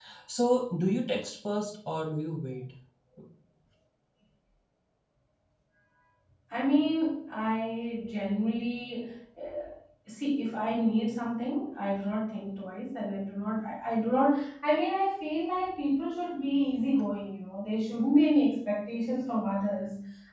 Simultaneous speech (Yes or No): No